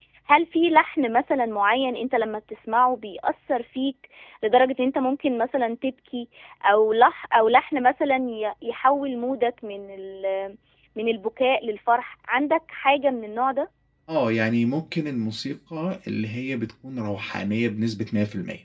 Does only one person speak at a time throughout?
Yes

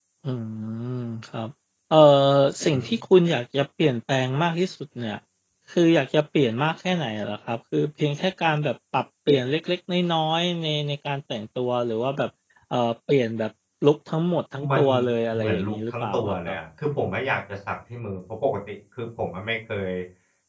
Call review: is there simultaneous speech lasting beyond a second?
Yes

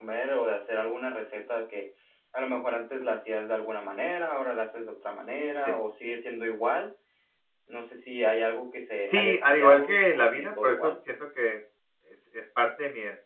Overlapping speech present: Yes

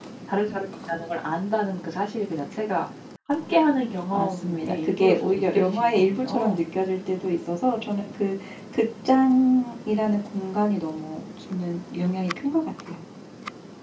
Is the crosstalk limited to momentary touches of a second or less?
No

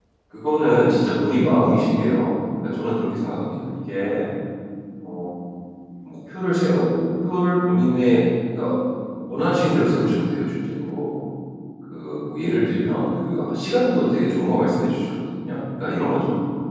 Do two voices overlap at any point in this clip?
No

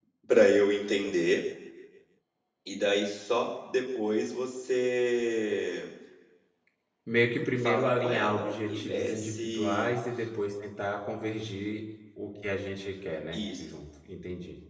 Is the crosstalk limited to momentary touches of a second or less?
No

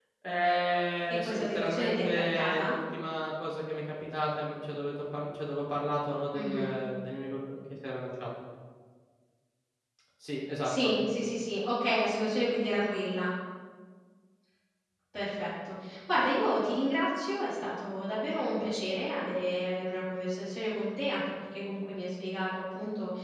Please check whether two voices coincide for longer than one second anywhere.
Yes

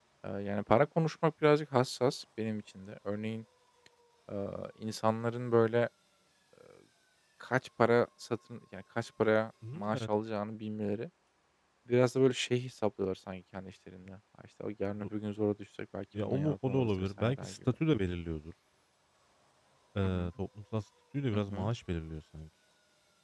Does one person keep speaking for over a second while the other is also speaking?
Yes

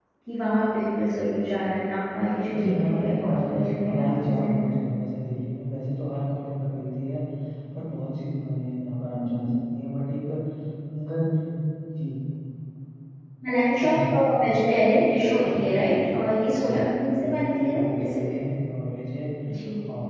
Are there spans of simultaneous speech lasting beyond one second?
Yes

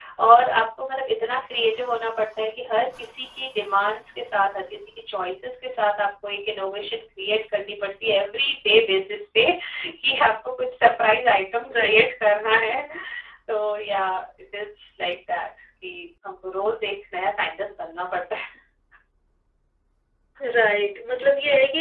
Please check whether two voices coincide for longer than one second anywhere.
No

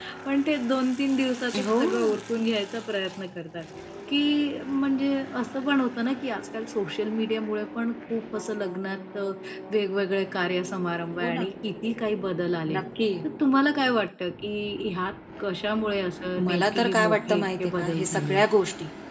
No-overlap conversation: No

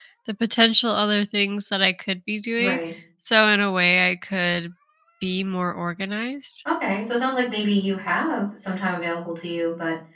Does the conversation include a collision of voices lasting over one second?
No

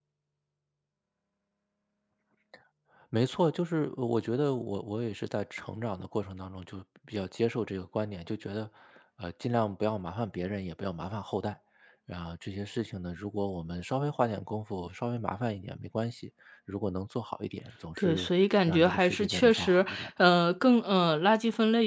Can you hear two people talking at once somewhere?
Yes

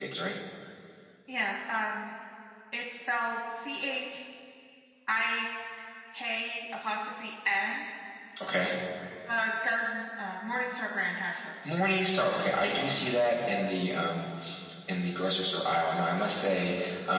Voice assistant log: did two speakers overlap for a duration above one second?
No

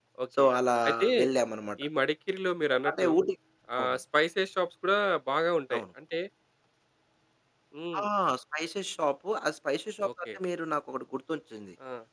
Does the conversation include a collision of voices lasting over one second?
No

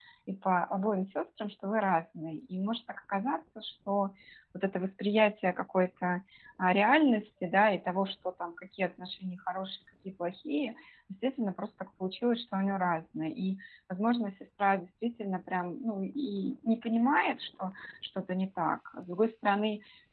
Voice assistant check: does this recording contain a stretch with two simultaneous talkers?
No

